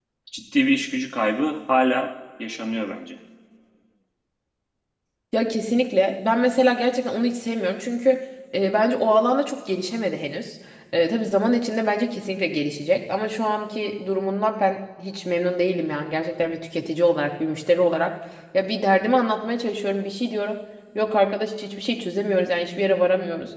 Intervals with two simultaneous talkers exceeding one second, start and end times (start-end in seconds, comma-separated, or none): none